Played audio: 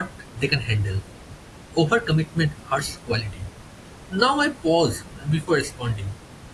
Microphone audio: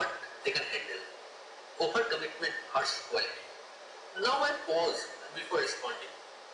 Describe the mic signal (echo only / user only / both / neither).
echo only